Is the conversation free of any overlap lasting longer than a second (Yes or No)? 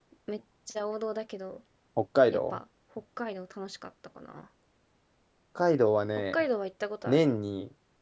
Yes